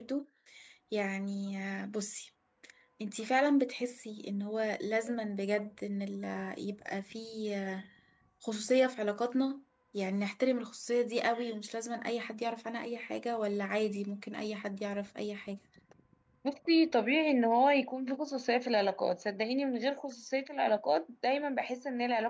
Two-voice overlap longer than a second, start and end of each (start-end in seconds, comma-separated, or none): none